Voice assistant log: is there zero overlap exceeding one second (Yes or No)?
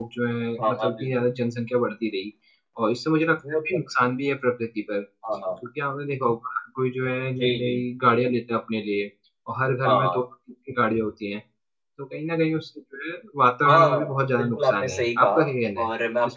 No